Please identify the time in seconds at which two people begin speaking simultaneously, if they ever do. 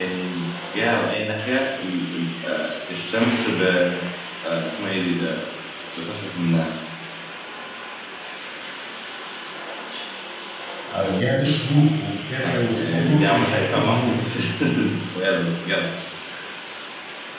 12 s

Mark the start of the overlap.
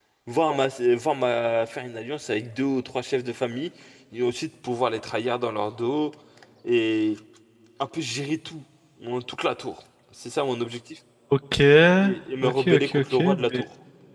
12 s

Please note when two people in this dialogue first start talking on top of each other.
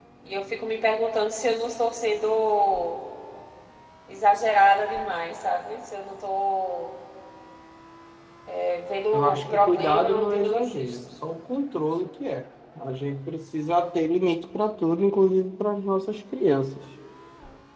9 s

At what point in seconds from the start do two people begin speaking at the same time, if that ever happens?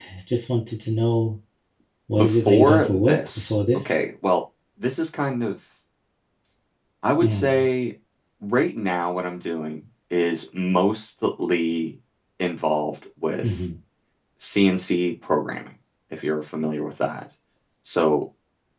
2 s

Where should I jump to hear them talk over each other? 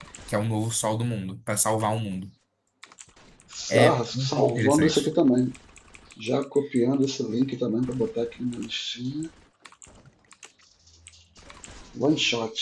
4 s

